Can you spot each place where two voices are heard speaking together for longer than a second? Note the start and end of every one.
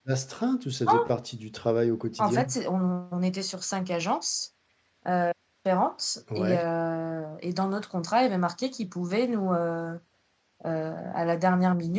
none

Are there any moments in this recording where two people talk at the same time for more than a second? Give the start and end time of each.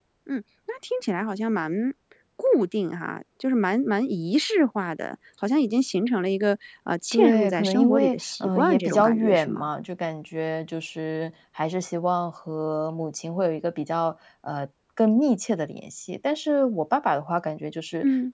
7.1-9.7

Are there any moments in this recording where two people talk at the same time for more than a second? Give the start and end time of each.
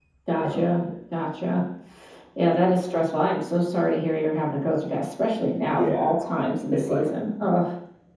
none

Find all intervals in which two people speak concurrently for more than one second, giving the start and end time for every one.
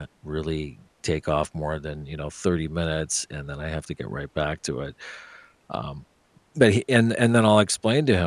none

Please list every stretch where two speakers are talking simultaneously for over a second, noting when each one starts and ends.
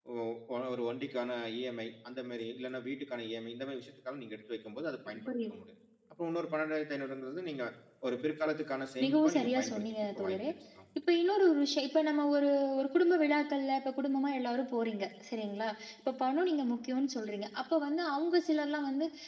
9.0-10.4

